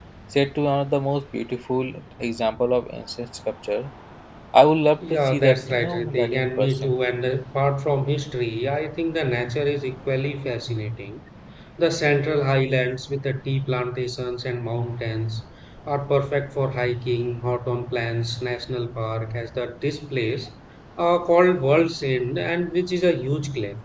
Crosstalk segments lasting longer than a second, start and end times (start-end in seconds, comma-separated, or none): 5.1-6.9